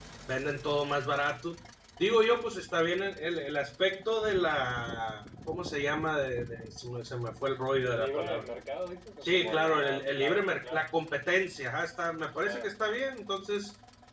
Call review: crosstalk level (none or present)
present